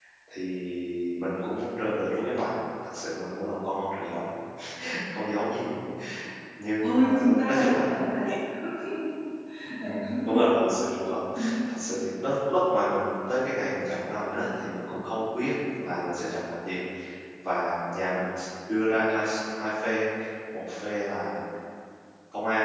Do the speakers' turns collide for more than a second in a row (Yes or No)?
Yes